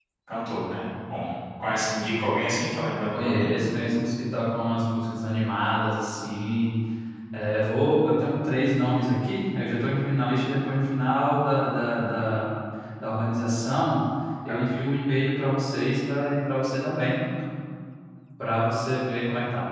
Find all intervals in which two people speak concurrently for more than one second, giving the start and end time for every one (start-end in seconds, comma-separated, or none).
none